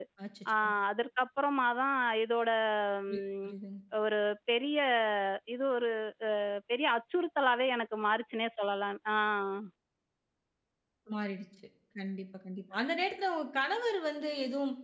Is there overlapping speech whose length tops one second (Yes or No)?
No